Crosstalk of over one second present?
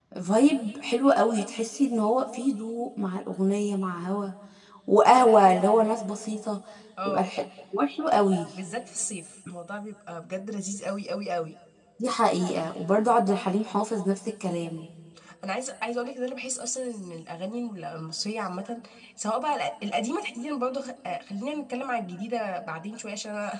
No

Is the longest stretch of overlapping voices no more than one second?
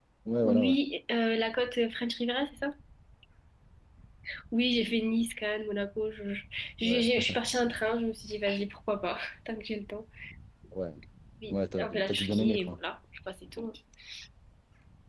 No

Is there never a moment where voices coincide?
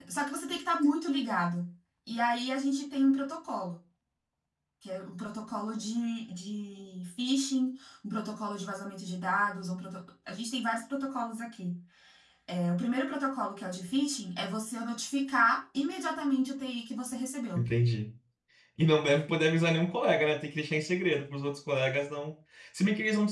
Yes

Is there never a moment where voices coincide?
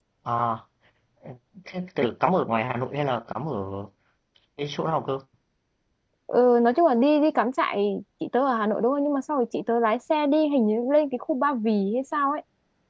Yes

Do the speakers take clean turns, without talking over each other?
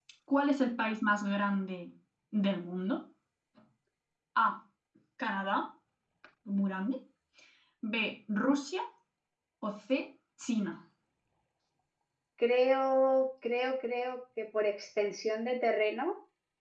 Yes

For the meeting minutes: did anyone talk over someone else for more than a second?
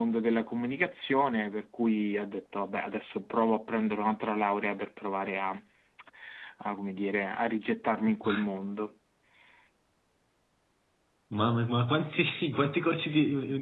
No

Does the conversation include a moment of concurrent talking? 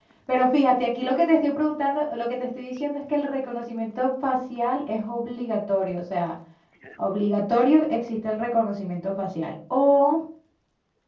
No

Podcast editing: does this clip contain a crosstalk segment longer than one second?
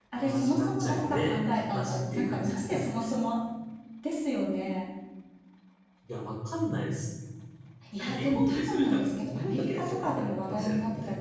Yes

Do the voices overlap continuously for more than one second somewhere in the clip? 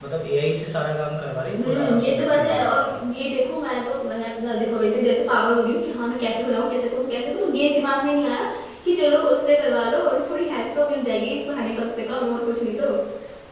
Yes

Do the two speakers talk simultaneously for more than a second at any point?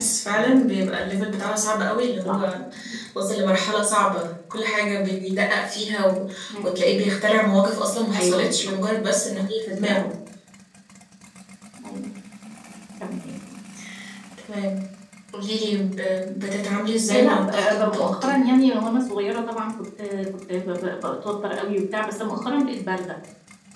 Yes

